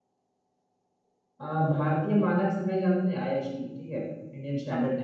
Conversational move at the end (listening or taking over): listening